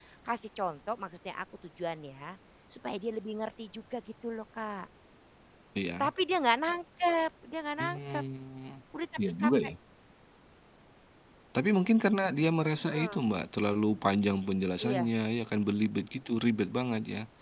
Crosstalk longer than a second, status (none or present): none